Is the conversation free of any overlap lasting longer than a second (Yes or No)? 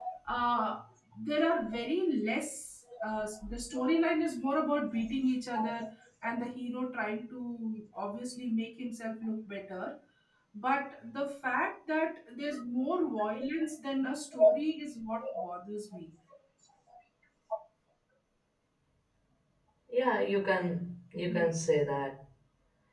Yes